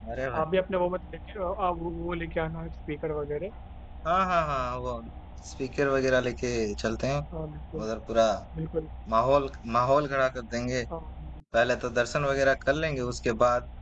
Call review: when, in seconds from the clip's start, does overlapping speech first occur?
none

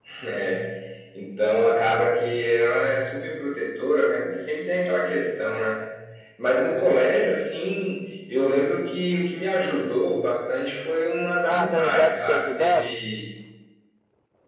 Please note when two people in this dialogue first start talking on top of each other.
11 s

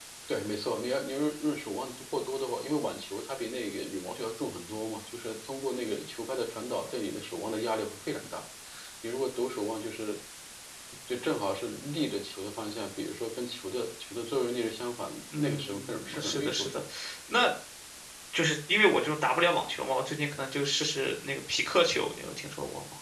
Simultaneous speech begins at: 15 s

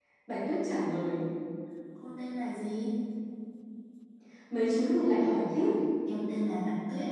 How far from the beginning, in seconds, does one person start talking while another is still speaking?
none

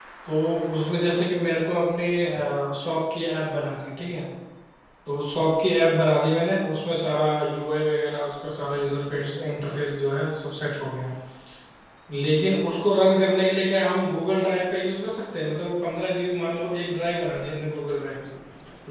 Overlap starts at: none

